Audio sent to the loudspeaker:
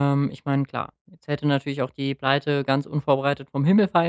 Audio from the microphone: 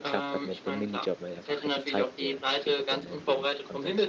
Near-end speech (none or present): present